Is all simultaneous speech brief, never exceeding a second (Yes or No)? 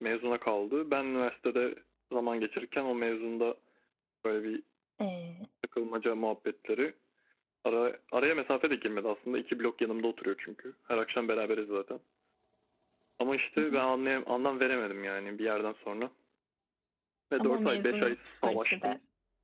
No